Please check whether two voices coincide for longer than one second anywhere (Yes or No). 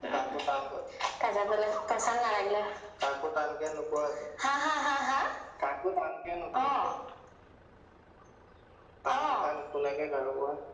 No